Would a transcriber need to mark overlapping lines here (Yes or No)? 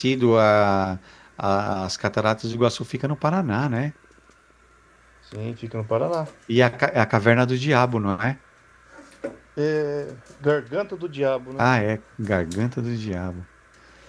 No